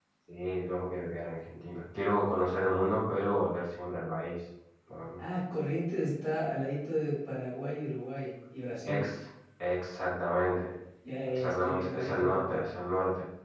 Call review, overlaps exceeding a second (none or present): present